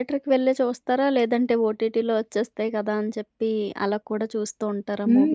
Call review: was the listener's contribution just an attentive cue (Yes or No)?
No